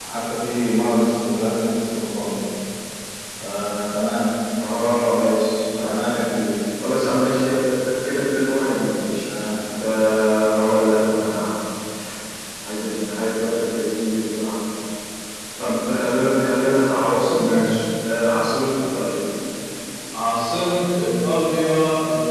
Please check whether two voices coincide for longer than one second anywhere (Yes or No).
No